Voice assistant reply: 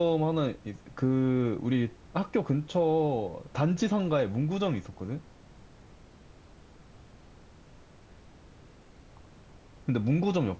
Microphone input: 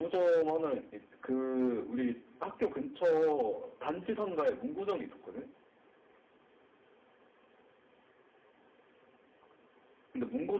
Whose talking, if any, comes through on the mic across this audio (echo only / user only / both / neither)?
echo only